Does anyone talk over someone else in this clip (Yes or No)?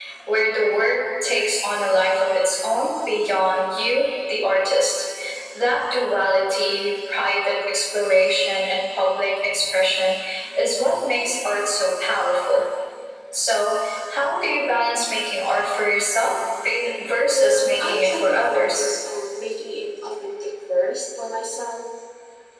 Yes